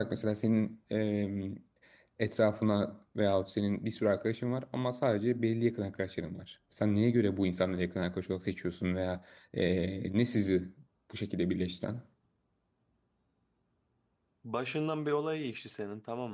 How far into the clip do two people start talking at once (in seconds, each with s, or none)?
none